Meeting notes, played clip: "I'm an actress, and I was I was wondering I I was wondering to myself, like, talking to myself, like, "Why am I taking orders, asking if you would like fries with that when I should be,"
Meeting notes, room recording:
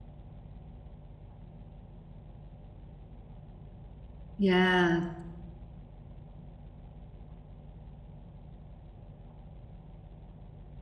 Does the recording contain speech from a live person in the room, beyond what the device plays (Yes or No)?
Yes